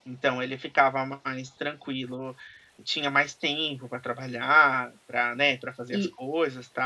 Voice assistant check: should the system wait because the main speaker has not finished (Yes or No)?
Yes